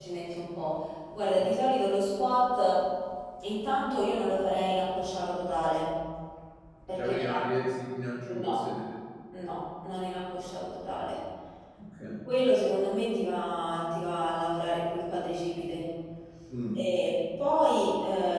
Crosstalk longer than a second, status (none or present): none